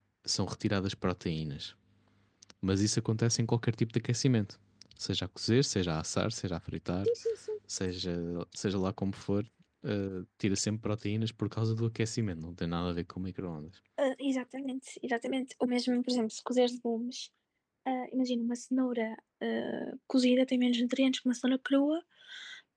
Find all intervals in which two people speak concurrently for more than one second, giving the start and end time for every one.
none

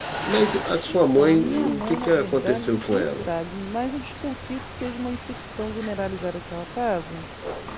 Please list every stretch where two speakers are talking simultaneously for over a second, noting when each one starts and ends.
0.9-3.3

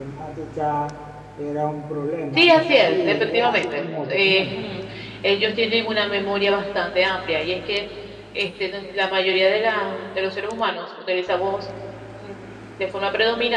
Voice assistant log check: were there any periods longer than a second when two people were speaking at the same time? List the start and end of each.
2.4-4.6

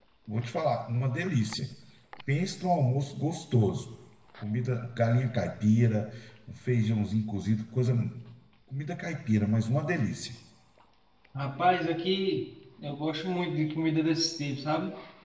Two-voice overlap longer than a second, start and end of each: none

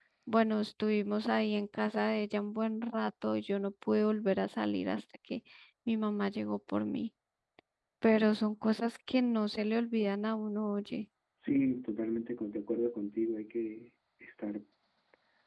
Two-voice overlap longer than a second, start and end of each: none

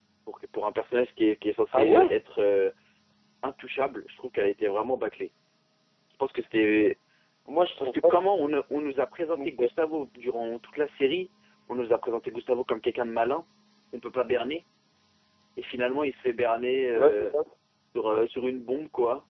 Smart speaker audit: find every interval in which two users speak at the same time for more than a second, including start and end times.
none

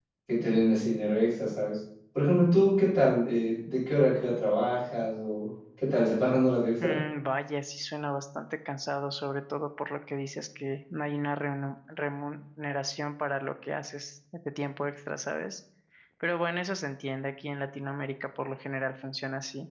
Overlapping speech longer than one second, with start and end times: none

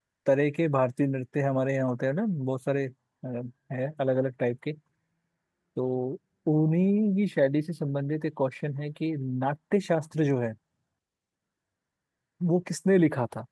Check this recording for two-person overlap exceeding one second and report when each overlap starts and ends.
none

